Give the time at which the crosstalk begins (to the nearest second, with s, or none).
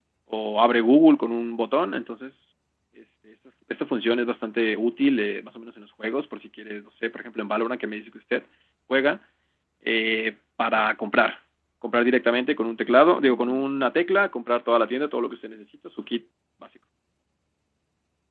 none